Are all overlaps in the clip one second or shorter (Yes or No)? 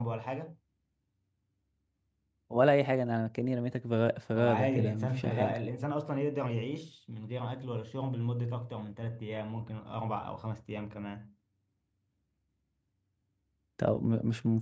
No